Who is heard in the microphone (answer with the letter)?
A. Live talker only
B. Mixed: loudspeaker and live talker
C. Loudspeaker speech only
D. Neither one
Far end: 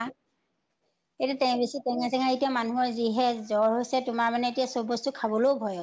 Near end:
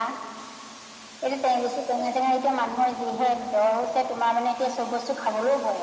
C